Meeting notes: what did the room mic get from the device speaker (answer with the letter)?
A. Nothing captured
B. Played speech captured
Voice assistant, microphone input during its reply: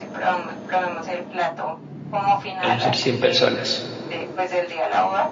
B